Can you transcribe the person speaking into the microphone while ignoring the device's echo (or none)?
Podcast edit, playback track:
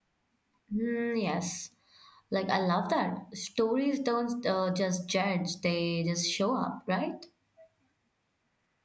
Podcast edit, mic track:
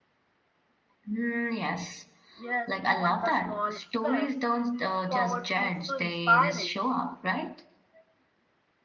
Yes, even the small steps forward feels so inspiring.